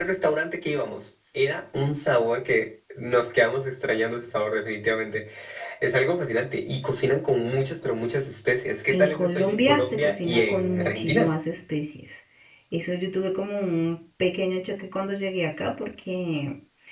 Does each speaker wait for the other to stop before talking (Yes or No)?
No